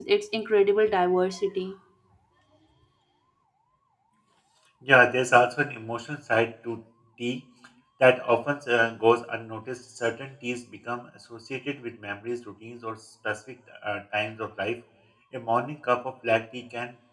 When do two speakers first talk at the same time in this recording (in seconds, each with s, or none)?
none